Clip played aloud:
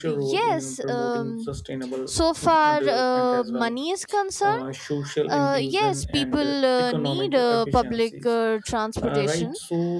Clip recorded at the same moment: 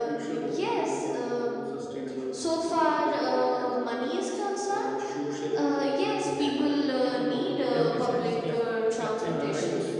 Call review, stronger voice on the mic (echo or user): echo